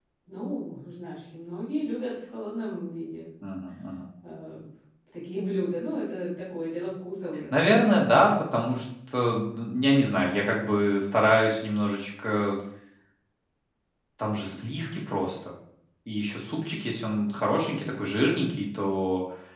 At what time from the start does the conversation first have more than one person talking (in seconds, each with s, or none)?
none